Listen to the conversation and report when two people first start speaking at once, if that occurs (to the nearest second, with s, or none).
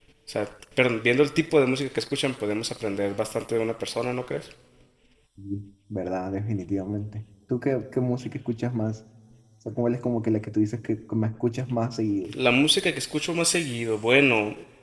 none